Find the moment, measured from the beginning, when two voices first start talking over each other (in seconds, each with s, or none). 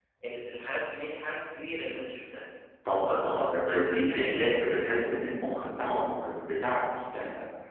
3.0 s